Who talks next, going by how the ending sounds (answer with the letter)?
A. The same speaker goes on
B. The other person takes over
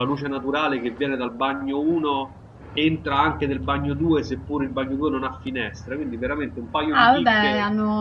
B